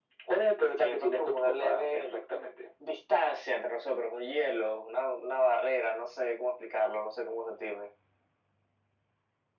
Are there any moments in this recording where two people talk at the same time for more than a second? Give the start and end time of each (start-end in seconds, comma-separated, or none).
0.8-2.1